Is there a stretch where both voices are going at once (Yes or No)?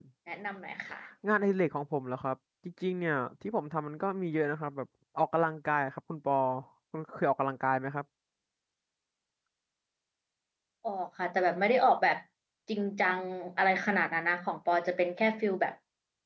No